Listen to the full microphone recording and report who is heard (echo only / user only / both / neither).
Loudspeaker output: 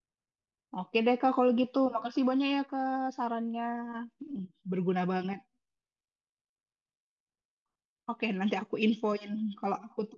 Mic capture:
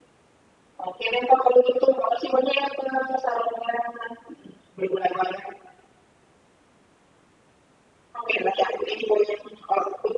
echo only